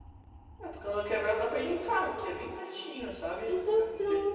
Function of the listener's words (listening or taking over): taking over